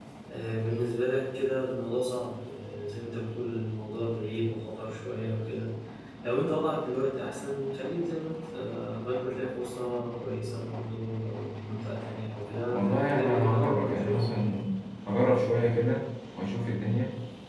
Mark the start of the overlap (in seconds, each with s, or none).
12.7 s